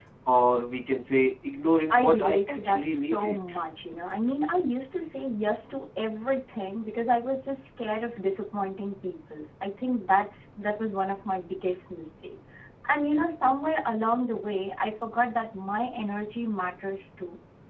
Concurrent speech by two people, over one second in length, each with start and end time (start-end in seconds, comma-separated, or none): 1.9-3.4